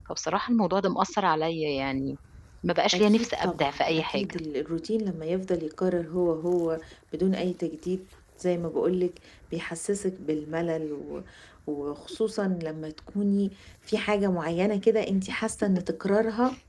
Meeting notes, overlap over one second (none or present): present